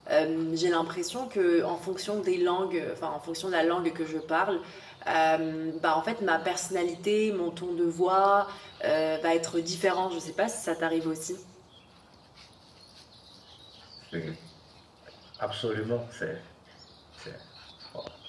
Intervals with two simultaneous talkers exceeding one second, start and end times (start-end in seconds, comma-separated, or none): none